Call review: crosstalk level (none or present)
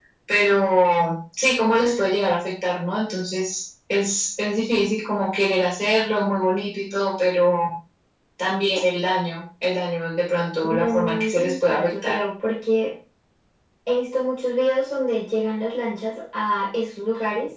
present